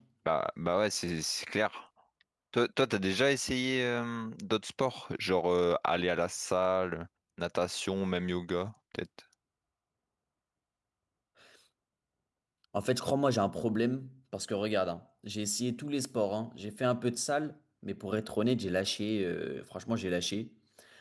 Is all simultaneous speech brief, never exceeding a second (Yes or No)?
Yes